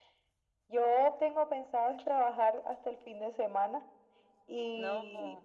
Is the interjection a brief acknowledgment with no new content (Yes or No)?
Yes